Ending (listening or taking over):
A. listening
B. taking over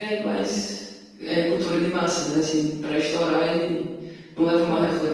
A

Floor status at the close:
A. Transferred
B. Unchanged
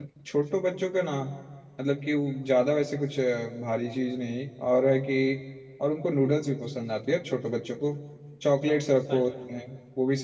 B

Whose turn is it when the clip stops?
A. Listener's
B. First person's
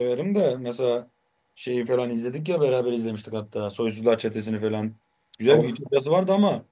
B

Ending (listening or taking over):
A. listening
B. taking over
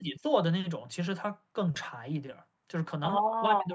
A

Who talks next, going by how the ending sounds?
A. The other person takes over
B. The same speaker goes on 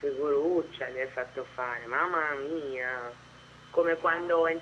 B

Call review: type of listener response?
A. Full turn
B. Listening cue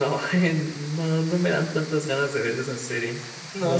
A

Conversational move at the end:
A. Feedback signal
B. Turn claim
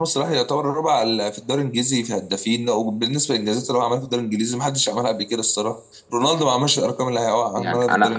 B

